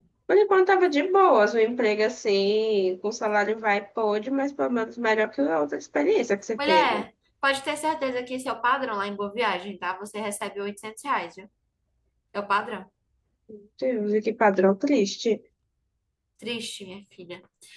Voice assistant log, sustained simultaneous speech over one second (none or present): none